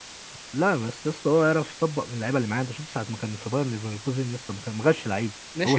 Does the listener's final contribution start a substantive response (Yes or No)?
Yes